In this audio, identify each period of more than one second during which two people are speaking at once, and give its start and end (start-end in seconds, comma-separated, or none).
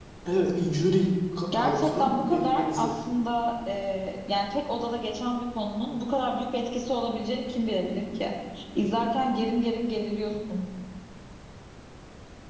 1.5-2.9